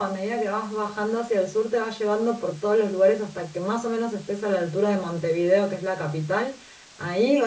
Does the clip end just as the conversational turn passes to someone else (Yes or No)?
No